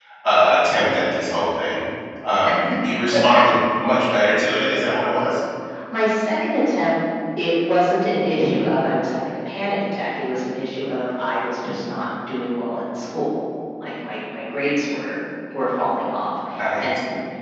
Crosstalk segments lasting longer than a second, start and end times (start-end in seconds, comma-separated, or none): none